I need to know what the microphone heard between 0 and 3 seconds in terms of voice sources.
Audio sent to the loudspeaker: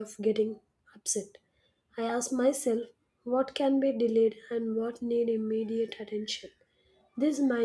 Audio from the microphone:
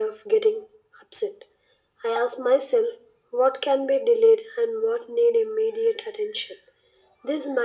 echo only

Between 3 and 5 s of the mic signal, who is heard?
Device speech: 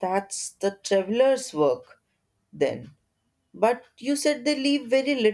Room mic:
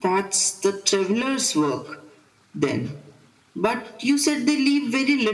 echo only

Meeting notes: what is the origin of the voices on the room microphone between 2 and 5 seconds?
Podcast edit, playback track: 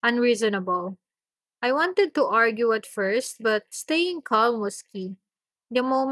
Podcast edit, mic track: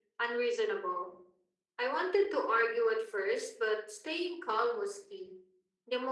echo only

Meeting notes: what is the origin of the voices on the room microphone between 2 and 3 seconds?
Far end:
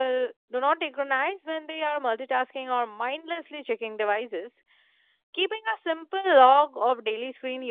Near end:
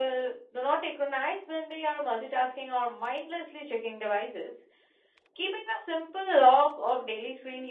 echo only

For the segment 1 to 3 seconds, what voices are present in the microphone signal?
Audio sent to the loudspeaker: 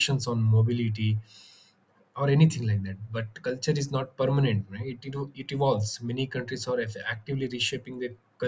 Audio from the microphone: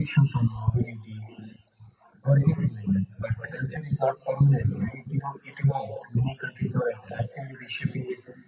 echo only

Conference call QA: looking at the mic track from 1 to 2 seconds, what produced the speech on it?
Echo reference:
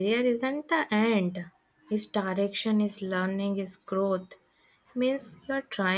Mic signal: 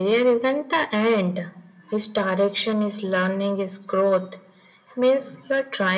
echo only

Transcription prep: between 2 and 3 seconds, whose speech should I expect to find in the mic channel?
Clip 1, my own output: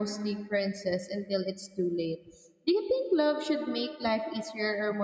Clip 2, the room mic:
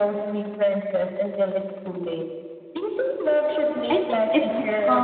echo only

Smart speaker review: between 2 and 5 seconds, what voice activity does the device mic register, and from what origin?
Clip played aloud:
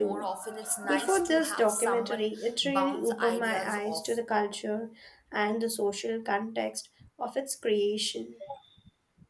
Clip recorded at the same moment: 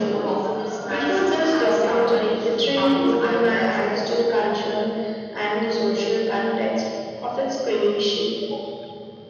echo only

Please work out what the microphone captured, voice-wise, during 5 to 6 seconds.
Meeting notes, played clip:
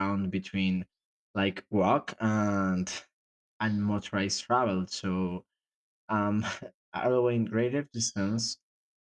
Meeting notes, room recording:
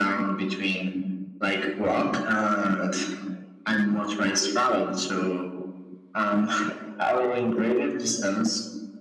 echo only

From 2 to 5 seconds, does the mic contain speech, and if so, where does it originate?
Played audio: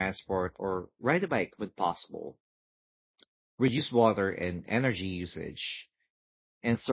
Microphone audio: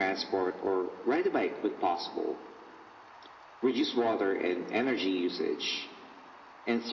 echo only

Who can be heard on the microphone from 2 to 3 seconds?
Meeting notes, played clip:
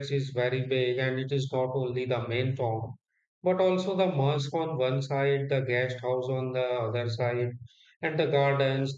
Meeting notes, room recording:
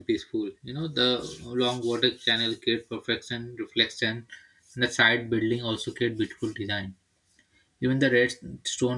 user only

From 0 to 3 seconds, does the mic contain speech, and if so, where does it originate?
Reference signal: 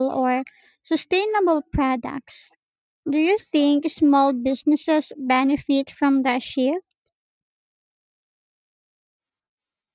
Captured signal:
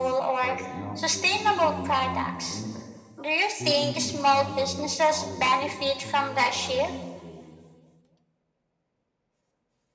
both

